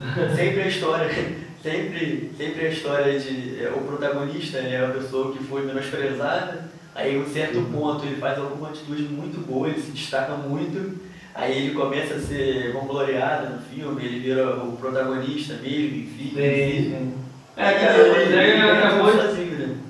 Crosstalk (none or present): present